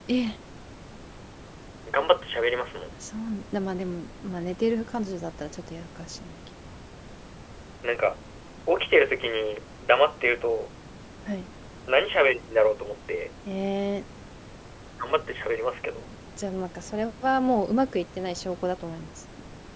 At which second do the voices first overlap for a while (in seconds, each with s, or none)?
none